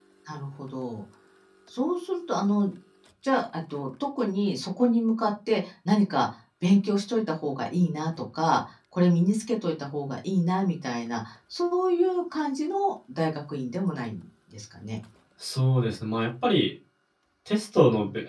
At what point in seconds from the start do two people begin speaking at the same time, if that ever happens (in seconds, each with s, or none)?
none